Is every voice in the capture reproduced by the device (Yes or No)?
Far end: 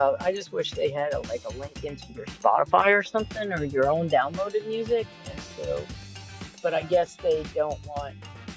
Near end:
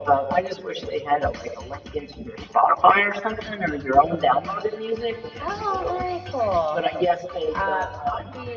No